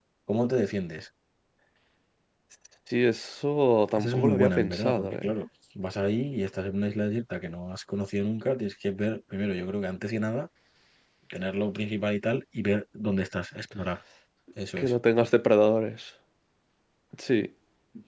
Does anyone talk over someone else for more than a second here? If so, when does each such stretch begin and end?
4.0-5.3

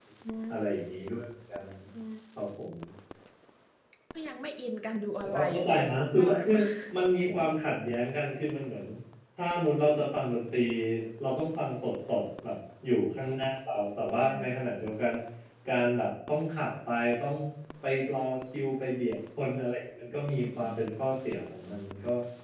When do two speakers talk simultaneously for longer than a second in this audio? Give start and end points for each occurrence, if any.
5.2-6.5

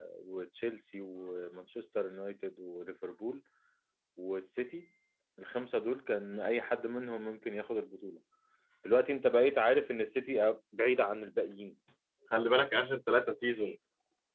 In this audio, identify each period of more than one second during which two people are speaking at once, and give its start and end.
none

